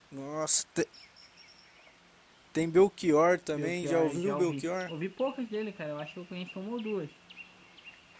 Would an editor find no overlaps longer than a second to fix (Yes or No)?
No